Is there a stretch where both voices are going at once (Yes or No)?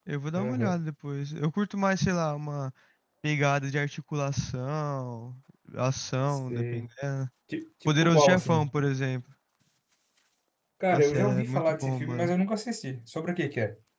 Yes